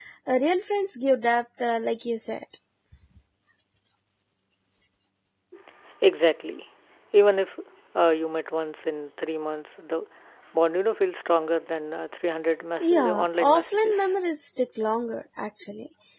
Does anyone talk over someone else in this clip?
Yes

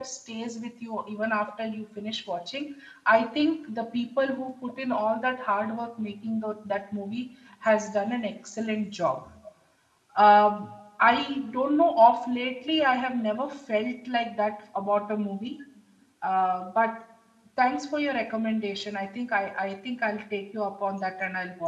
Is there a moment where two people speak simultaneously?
No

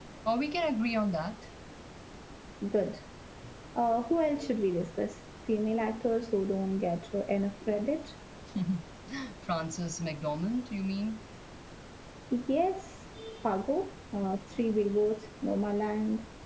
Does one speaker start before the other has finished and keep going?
No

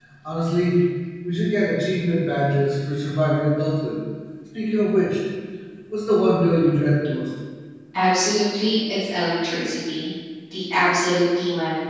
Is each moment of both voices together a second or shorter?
Yes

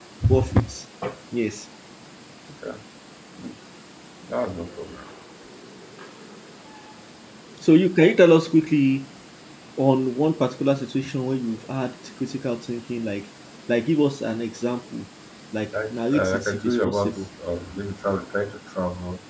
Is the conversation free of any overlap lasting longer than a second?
No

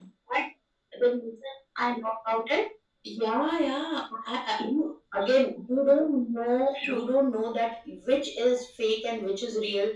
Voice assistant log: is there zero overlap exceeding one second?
Yes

